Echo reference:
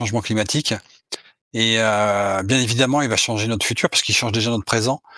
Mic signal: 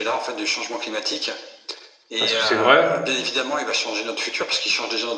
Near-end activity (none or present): present